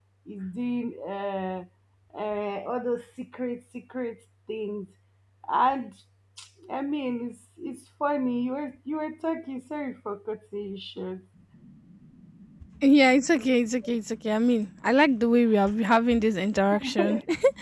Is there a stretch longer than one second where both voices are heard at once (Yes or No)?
No